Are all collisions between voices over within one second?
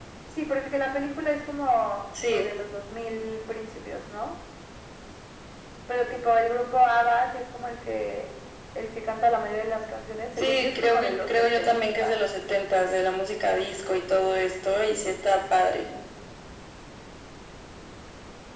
No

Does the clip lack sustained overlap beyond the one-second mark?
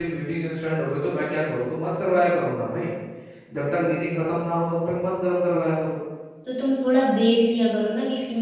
Yes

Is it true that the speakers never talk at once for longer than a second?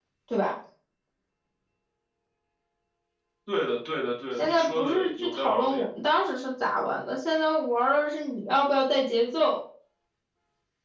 No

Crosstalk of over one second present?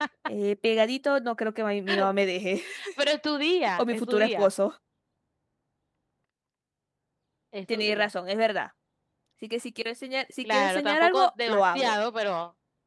Yes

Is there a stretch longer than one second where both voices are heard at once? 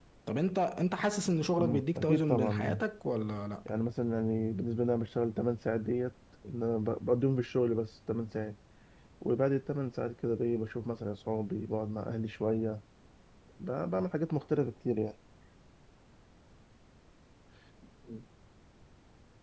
Yes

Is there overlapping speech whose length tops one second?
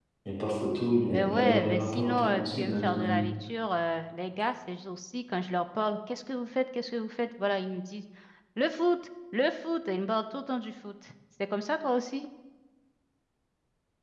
Yes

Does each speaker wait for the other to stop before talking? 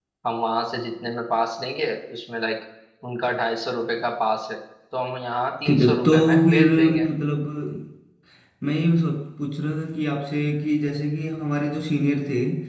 No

